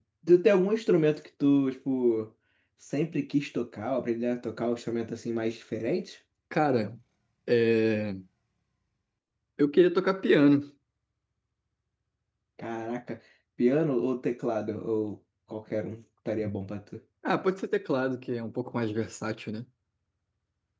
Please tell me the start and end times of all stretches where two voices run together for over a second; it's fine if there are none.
none

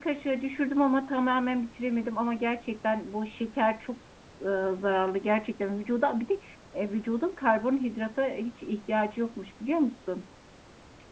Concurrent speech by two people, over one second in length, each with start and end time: none

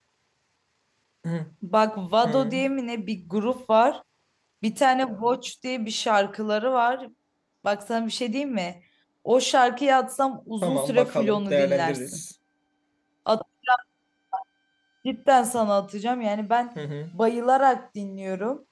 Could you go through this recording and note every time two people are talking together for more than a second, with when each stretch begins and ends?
10.6-12.2

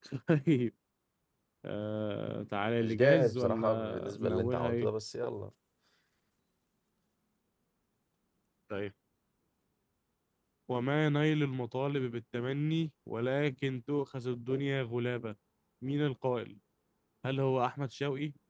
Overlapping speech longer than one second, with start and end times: 2.8-4.9

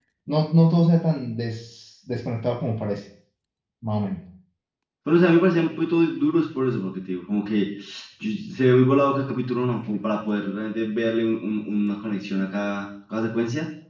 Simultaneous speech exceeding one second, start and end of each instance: none

